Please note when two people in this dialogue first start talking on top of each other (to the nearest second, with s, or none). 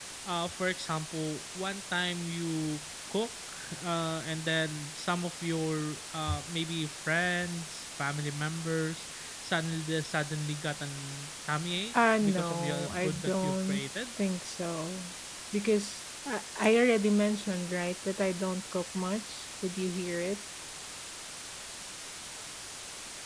12 s